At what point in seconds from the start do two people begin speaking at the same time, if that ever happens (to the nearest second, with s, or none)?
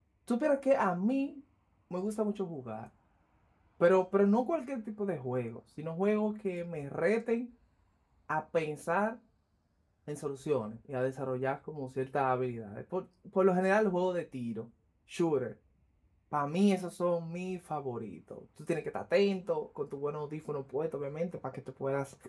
none